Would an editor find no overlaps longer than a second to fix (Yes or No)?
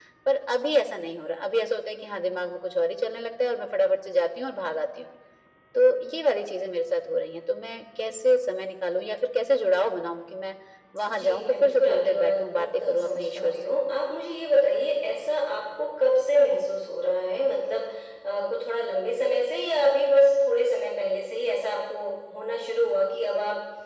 No